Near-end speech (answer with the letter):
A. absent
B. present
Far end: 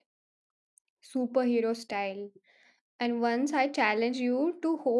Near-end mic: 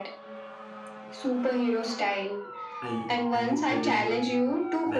B